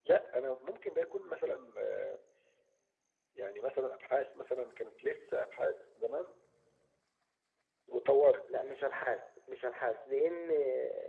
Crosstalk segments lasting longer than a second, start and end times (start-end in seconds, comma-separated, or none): none